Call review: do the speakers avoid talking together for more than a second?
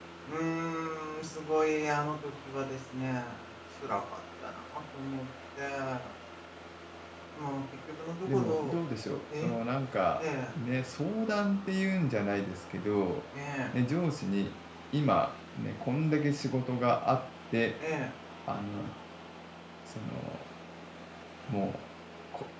Yes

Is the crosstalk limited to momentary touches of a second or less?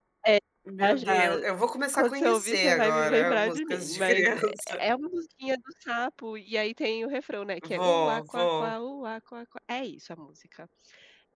No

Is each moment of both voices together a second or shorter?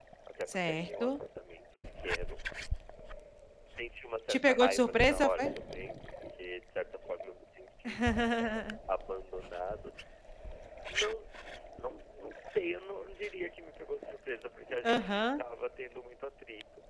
No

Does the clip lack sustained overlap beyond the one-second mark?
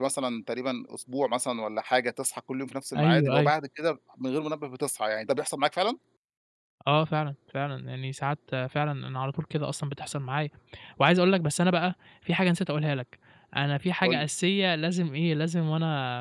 Yes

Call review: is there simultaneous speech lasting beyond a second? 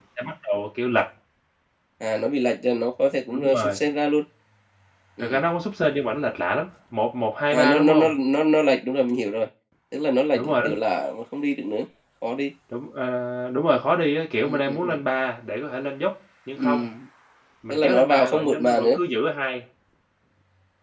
Yes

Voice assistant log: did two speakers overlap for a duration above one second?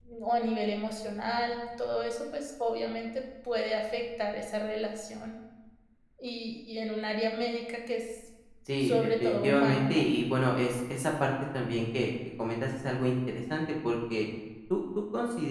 Yes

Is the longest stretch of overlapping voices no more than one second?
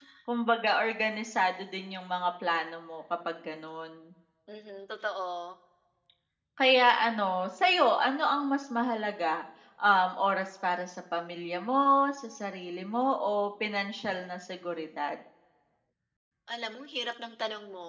Yes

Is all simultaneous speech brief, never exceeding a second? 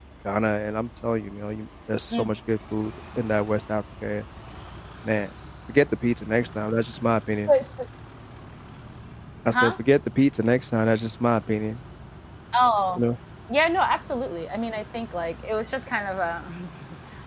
Yes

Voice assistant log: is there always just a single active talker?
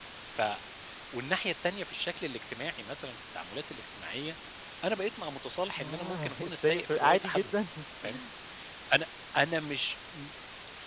No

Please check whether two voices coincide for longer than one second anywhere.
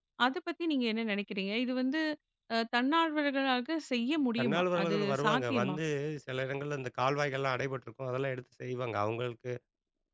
Yes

